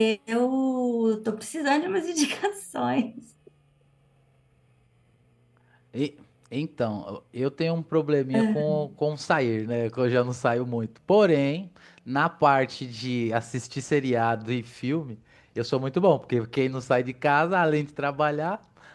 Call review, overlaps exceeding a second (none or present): none